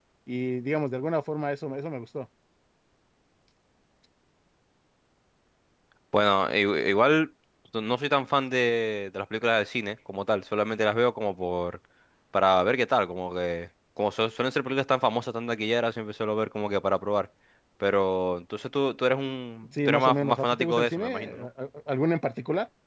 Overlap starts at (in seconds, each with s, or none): 19.7 s